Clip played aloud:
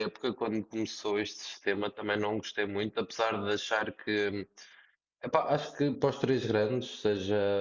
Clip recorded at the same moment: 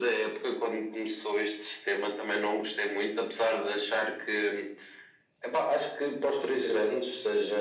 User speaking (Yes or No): No